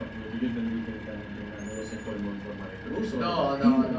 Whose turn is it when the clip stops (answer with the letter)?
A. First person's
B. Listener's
B